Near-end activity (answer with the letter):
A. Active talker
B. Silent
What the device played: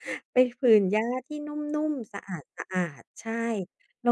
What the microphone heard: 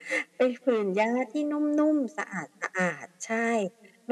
B